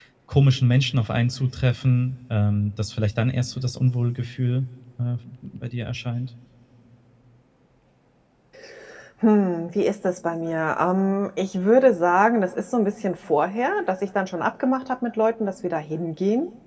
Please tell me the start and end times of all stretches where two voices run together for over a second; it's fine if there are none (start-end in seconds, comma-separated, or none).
none